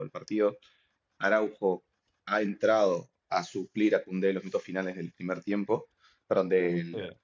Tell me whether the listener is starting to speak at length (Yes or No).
No